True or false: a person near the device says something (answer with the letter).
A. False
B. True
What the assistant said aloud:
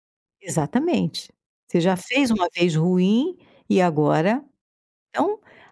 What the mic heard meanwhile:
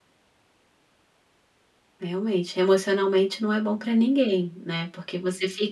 B